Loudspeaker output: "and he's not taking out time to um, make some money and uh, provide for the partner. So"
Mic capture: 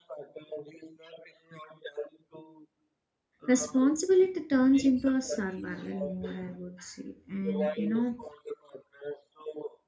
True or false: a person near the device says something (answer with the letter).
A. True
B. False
A